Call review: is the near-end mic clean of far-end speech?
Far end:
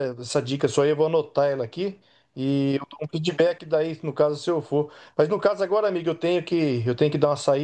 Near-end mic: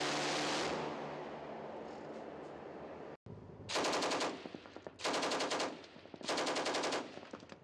Yes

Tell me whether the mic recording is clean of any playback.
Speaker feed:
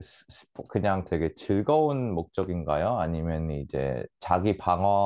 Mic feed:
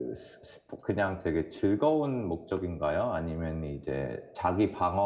No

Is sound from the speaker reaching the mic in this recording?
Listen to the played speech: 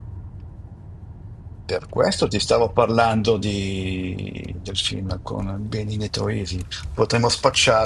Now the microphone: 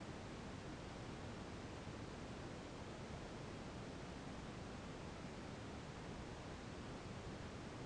No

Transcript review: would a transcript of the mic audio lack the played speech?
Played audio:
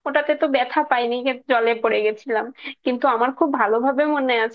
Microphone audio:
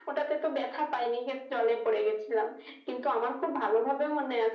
No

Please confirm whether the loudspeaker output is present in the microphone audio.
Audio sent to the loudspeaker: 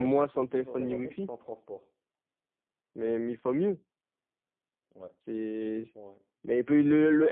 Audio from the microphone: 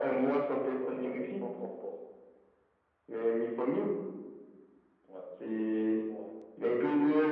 Yes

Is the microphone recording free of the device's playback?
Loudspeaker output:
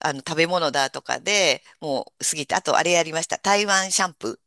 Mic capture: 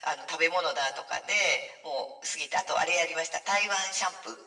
No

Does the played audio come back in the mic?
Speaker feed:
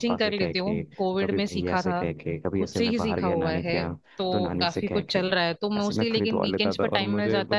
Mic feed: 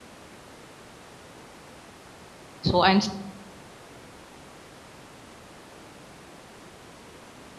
No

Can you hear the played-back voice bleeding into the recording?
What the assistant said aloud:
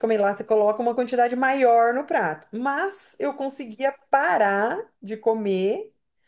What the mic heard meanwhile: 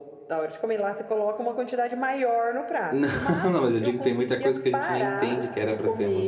Yes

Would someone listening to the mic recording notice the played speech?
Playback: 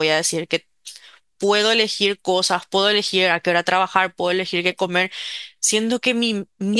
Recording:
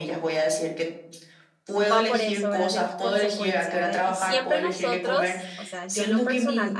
Yes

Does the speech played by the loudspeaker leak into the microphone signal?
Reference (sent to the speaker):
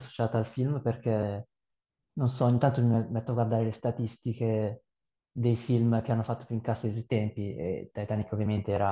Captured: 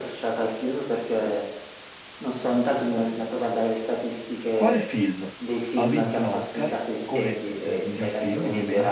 Yes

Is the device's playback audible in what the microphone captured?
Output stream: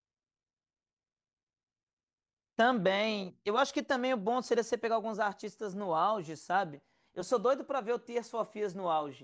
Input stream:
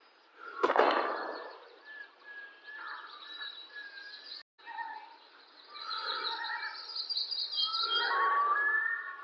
No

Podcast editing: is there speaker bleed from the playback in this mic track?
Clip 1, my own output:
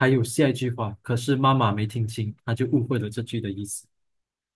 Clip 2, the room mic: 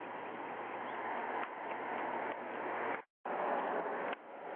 No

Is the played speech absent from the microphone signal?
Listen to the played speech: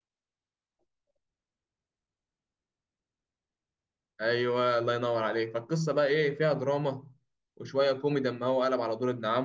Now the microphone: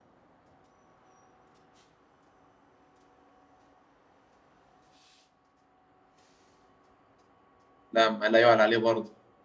Yes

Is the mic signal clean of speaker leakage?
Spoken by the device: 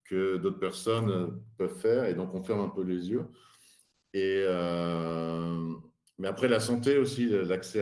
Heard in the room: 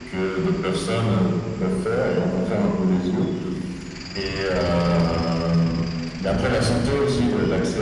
No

